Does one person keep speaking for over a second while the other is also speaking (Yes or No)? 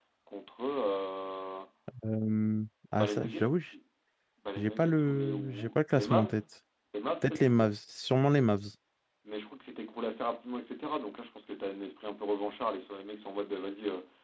Yes